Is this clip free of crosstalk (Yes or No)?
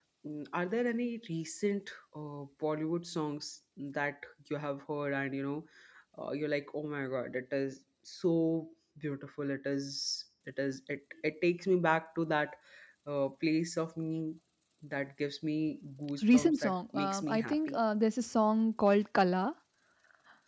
No